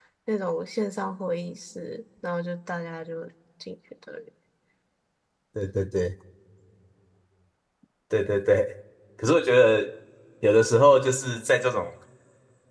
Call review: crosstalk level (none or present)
none